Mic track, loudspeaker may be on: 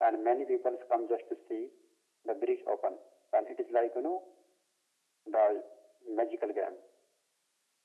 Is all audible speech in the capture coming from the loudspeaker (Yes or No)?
Yes